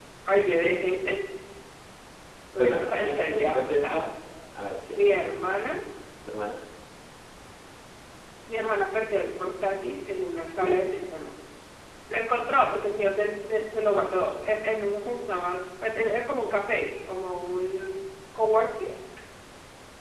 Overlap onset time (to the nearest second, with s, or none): 3 s